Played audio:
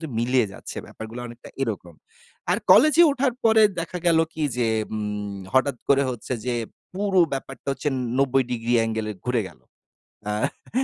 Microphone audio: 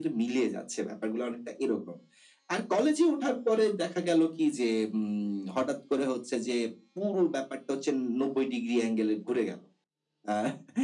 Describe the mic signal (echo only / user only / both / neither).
echo only